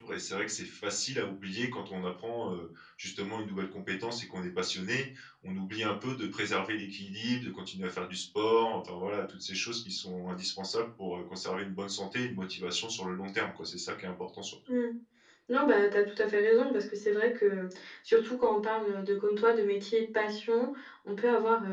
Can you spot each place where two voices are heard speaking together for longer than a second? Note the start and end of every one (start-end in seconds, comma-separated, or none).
none